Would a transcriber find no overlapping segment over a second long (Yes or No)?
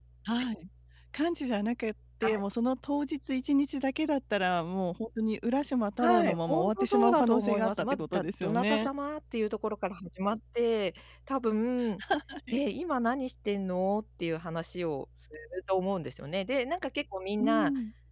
No